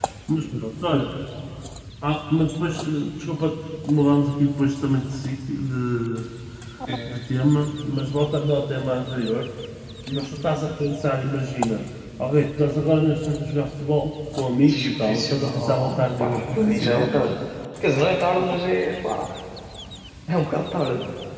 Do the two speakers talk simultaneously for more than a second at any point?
Yes, from 14.6 s

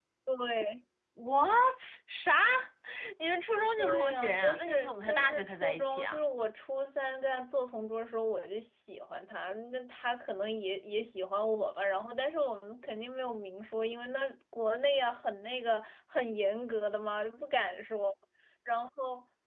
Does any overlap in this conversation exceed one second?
Yes, from 3.8 s

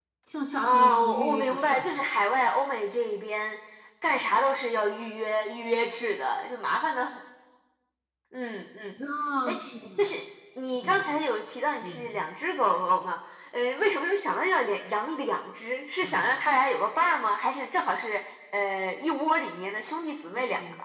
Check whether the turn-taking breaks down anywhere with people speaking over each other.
Yes, from 0.6 s

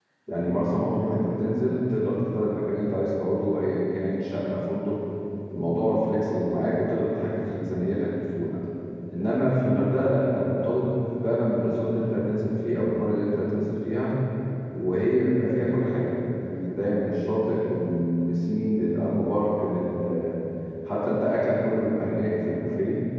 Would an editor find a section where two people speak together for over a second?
No

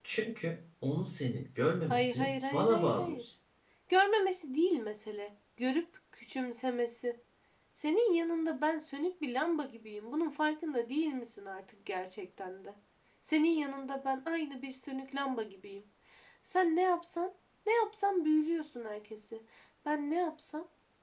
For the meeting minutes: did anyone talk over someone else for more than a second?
Yes, from 1.9 s

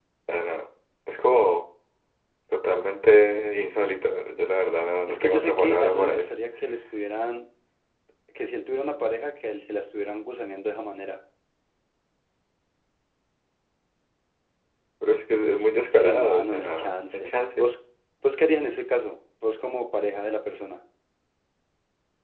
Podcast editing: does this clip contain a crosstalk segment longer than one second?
Yes, from 5.1 s

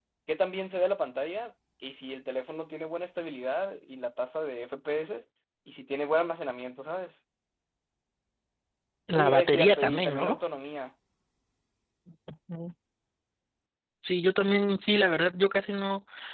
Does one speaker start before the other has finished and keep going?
Yes, from 9.1 s

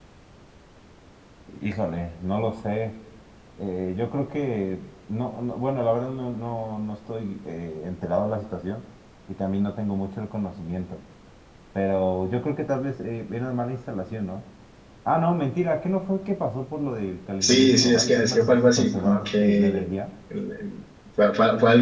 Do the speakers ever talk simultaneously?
Yes, from 17.4 s

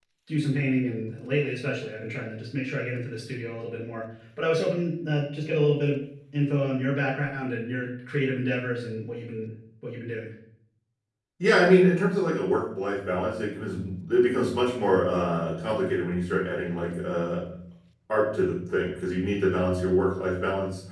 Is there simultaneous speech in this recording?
No

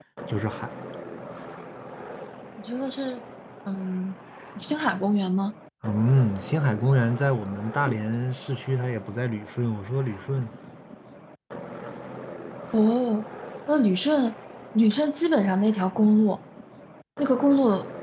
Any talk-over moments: No

